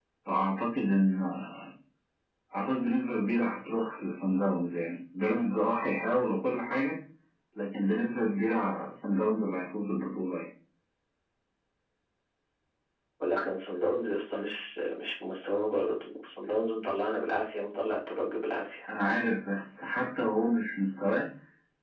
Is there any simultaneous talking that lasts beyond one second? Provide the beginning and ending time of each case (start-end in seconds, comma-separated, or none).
none